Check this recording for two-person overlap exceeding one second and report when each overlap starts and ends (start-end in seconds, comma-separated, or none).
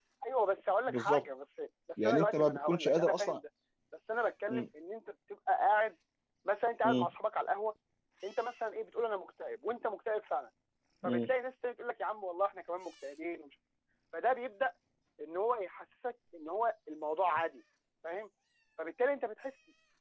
2.0-3.4